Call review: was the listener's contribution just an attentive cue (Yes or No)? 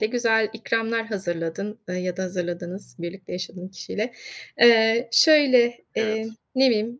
Yes